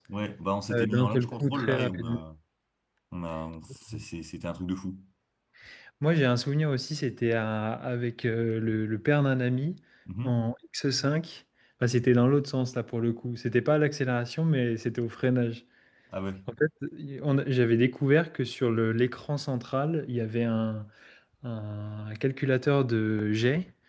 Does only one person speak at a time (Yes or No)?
No